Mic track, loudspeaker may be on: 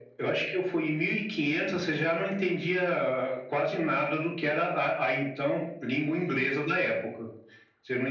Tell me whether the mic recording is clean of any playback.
No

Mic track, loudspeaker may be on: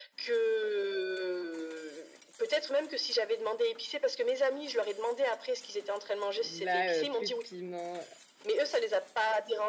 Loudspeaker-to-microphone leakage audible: Yes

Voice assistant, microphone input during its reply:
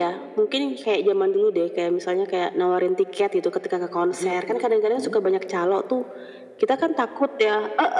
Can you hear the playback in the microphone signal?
Yes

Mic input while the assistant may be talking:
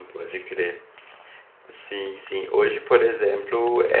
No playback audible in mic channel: Yes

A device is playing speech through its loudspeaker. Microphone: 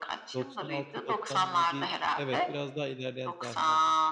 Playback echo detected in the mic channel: Yes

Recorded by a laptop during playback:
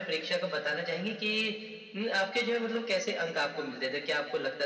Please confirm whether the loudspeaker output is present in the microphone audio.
Yes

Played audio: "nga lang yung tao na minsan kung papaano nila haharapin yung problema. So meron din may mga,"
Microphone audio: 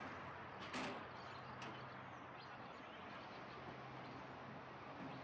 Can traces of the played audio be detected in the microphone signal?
No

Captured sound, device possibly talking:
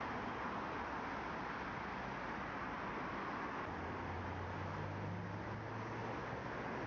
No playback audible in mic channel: Yes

